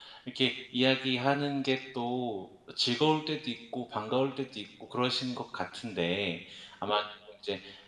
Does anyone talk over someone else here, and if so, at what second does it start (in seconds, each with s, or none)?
none